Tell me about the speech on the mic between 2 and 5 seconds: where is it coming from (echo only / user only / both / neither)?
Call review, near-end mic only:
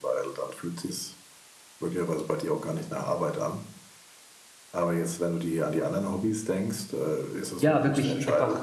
echo only